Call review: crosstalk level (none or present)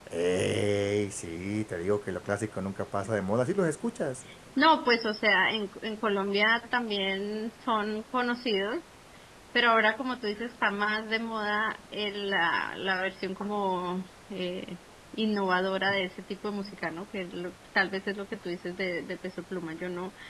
none